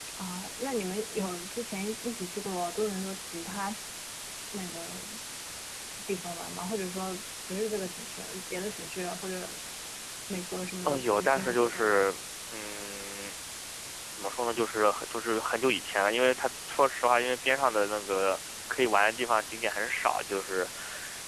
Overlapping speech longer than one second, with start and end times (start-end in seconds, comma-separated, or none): 10.8-12.1